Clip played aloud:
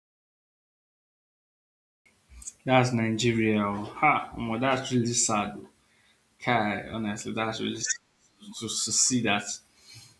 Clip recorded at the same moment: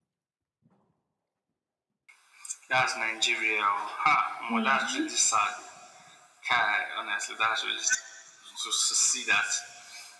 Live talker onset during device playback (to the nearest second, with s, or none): 4 s